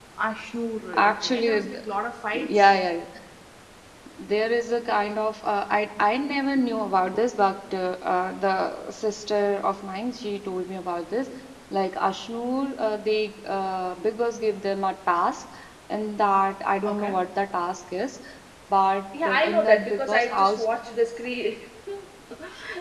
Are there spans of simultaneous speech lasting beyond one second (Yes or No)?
Yes